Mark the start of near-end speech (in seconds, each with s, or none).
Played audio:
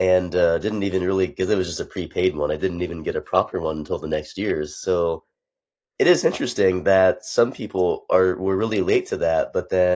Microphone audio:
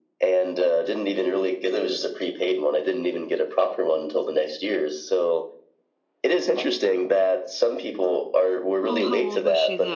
8.8 s